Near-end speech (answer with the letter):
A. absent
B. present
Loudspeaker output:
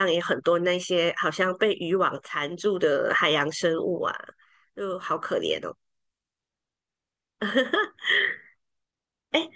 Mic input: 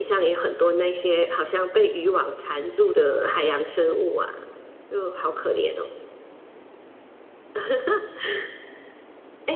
A